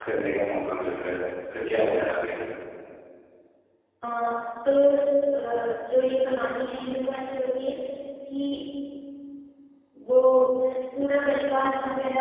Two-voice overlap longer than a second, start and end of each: none

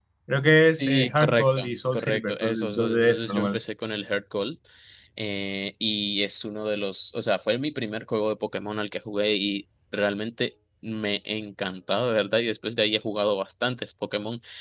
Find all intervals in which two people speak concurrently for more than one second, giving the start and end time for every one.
0.8-3.6

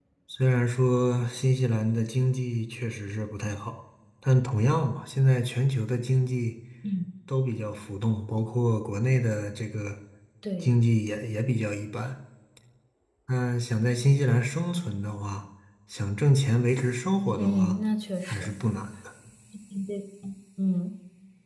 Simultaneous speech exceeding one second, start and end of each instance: none

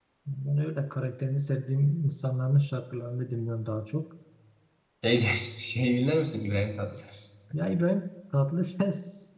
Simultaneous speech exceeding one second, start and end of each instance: none

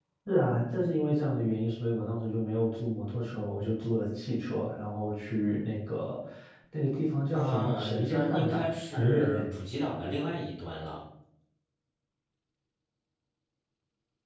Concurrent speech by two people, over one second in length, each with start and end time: 7.3-9.4

